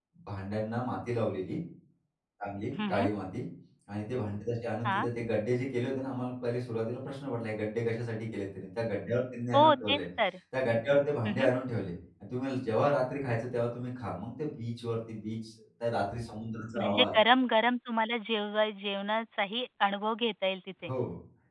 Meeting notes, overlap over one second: none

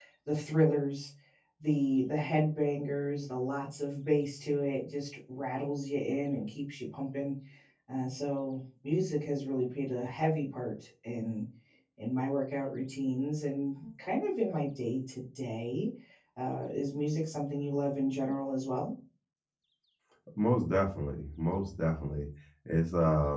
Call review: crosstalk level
none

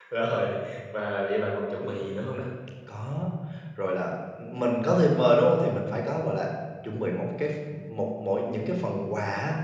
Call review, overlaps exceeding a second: none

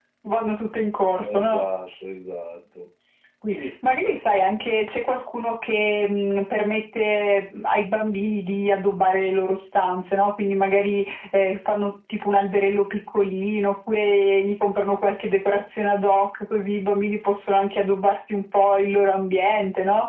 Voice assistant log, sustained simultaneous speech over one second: none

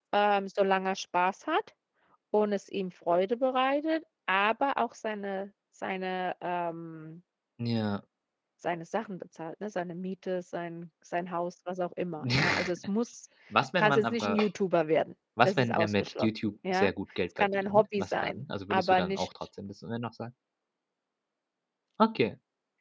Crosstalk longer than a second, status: present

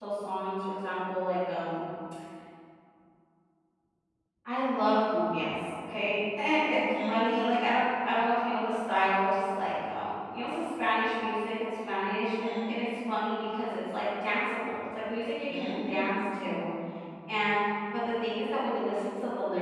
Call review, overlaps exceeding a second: present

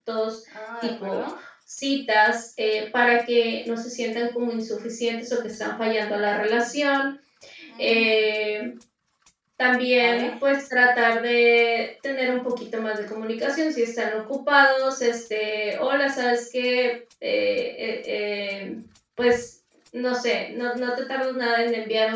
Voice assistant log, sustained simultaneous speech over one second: none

